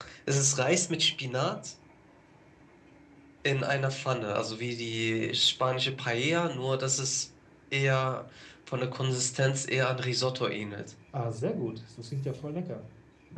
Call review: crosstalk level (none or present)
none